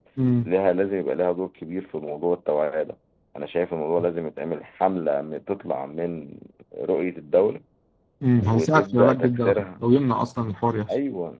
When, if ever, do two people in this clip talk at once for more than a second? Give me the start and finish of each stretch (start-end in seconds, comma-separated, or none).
8.4-9.6